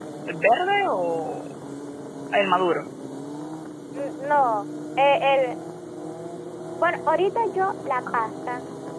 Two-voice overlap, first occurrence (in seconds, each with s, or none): none